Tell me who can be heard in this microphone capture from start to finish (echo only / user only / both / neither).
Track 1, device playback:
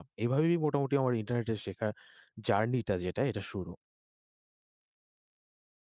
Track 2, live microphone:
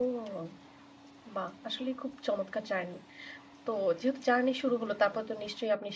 user only